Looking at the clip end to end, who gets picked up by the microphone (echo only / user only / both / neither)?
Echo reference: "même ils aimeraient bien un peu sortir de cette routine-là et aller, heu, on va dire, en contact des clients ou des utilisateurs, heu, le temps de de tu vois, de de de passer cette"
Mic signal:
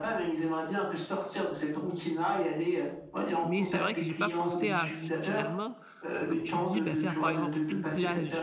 both